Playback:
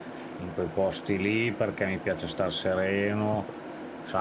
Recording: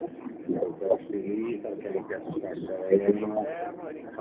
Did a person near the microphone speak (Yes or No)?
Yes